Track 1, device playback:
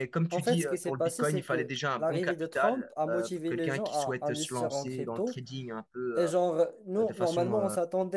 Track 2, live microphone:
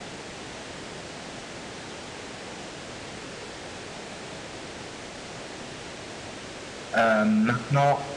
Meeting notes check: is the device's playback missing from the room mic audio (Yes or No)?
Yes